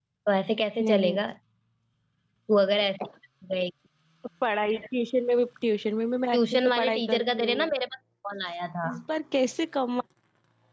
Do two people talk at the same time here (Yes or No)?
Yes